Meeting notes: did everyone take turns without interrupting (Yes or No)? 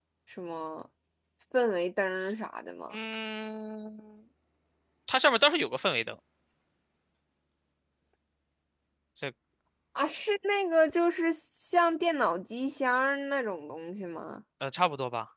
Yes